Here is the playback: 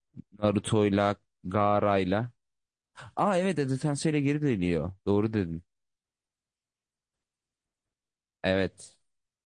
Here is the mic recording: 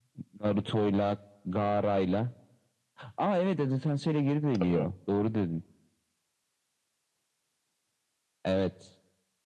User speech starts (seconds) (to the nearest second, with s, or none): 5 s